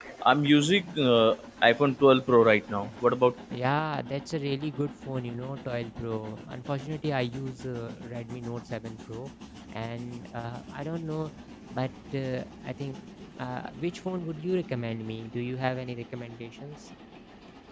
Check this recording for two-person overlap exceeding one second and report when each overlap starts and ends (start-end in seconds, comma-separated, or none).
none